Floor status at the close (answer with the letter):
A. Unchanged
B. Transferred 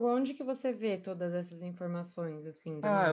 B